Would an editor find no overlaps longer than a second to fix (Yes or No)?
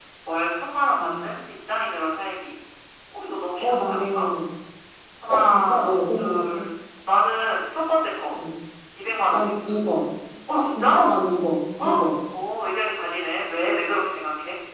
No